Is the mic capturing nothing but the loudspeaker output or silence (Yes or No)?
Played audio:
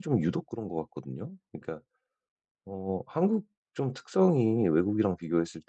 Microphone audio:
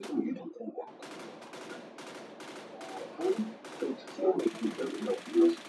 Yes